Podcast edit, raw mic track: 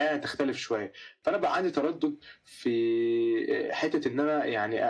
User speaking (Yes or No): No